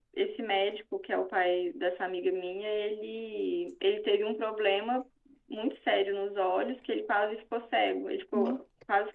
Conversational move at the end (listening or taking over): listening